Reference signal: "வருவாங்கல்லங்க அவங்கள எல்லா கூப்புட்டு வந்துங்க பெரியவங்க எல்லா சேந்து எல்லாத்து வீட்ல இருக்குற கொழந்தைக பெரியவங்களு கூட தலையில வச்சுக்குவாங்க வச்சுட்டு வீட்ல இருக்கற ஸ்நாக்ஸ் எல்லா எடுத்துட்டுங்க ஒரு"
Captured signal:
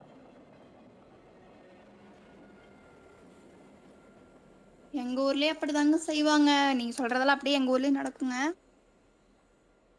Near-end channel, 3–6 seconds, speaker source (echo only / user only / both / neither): user only